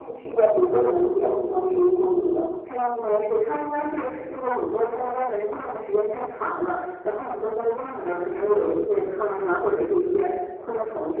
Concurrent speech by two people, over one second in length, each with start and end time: none

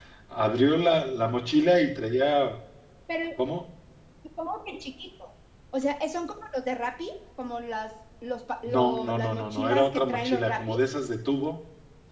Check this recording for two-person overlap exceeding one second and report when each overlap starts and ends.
8.7-10.8

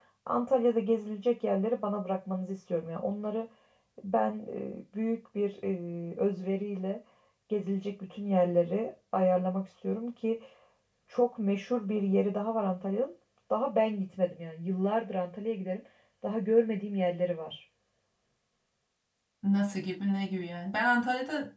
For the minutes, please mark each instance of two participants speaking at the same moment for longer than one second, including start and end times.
none

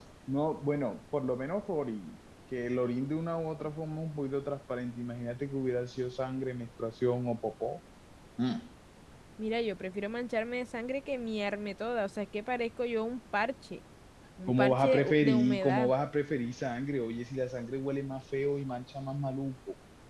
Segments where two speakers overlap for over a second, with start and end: 14.5-15.9

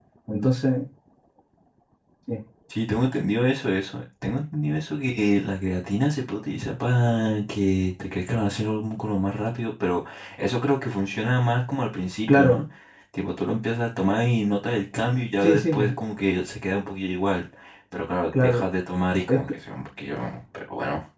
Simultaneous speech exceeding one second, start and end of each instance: none

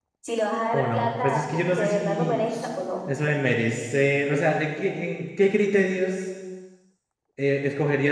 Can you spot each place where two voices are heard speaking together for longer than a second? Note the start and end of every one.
0.7-2.4

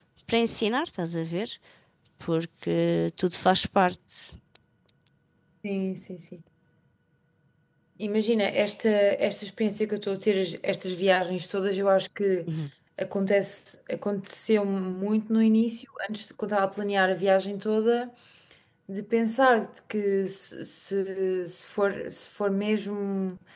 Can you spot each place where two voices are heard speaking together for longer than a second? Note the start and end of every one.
none

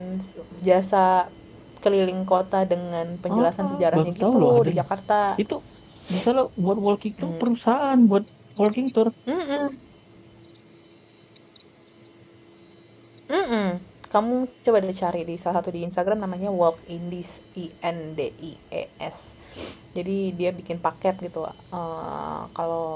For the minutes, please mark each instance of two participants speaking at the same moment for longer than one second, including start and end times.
3.3-4.8

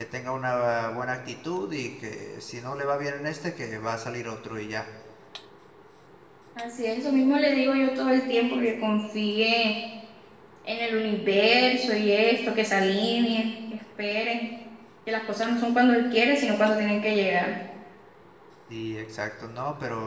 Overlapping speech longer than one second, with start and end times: none

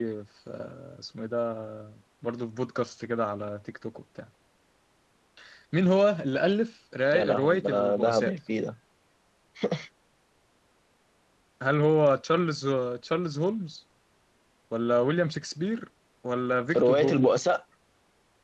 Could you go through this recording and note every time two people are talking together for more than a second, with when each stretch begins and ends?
7.1-8.3

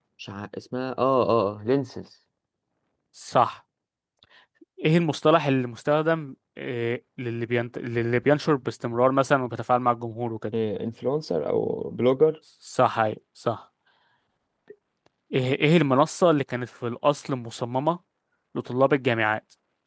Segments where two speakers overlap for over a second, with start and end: none

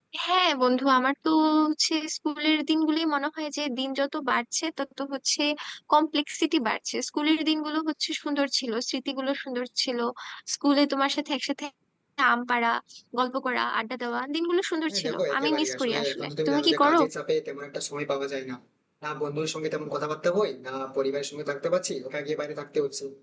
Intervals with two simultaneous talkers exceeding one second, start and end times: 14.9-17.0

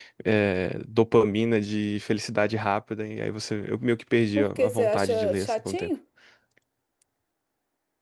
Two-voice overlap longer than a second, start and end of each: 4.4-5.9

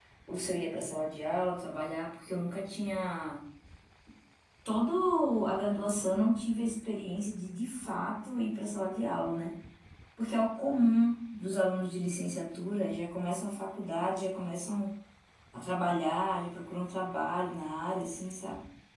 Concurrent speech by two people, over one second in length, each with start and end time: none

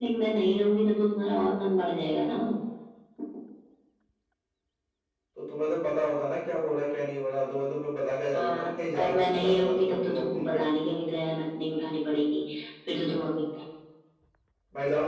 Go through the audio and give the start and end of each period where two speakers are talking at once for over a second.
8.3-10.6

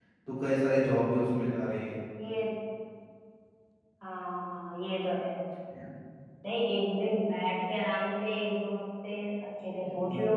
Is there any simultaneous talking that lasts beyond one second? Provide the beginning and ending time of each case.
none

